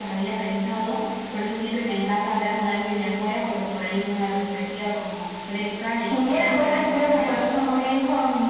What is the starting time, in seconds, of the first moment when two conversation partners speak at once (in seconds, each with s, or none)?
6.0 s